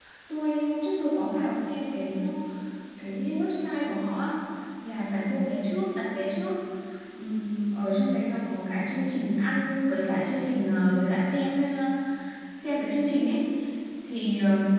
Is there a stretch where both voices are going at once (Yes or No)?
No